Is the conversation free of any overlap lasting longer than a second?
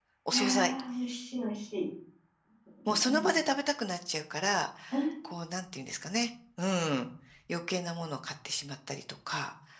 Yes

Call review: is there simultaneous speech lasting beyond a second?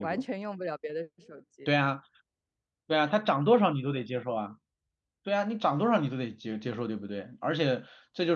No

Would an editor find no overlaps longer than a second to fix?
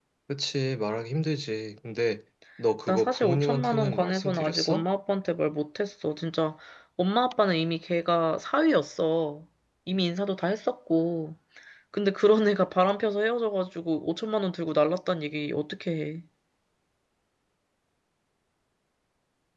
No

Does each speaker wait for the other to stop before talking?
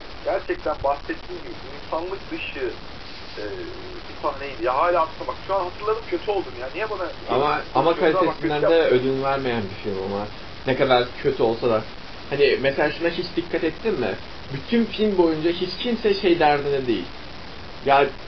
No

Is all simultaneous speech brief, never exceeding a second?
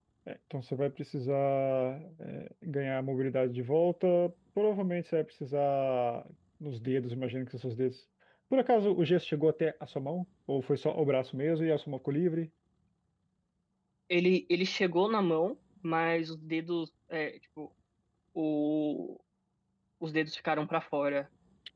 Yes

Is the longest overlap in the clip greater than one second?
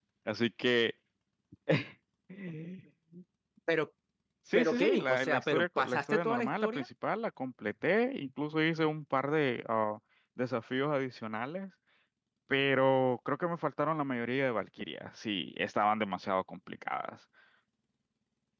Yes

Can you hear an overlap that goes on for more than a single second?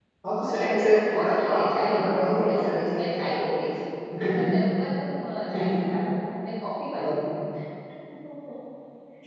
Yes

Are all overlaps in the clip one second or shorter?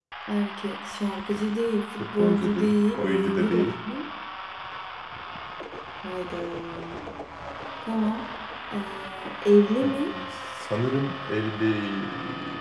No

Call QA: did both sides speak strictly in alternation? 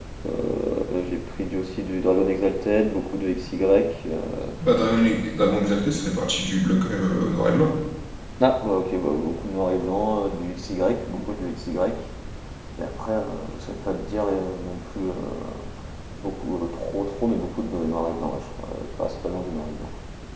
Yes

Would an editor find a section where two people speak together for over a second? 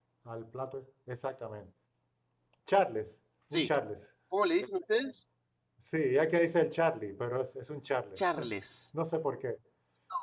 No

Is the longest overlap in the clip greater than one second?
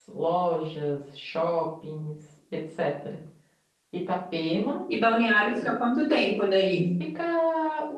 No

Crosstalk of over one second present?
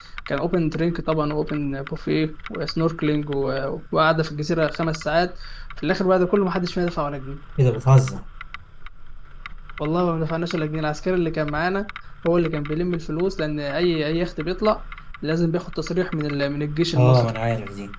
No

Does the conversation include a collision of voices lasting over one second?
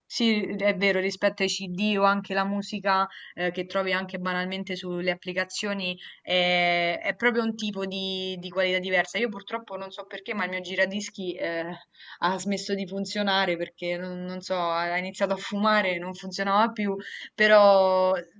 No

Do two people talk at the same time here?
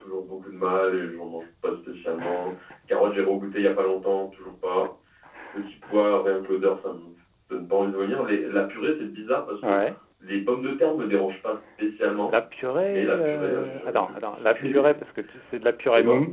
Yes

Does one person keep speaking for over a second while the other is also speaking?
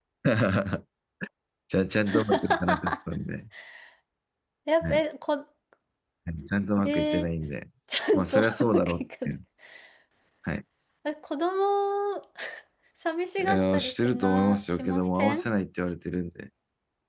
Yes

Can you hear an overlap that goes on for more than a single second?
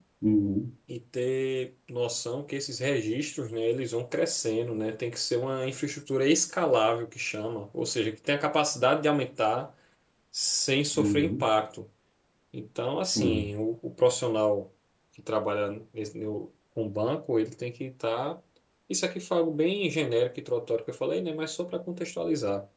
No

